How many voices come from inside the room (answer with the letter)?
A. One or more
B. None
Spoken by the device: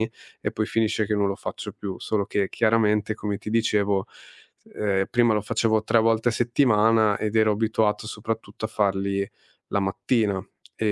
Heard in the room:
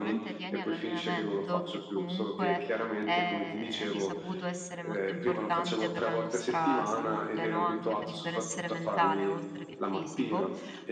A